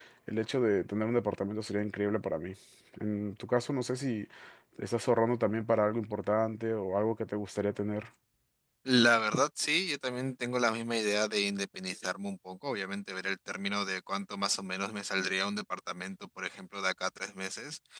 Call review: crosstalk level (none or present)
none